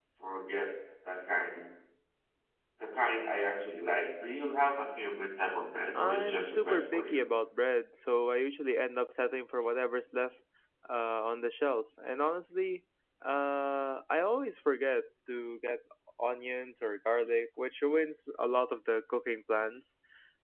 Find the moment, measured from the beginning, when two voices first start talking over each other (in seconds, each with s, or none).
6.0 s